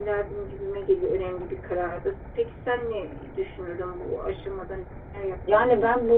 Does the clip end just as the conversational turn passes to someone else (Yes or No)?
Yes